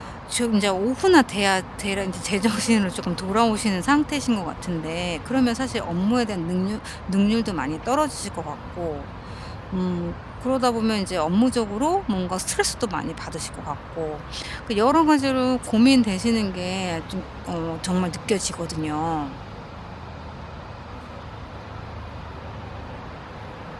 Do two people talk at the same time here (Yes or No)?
No